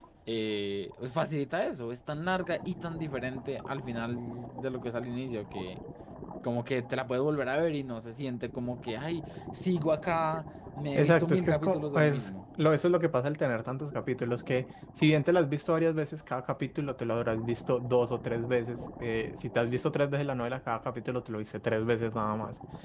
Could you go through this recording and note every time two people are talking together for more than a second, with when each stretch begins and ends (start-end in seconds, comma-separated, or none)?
10.9-12.3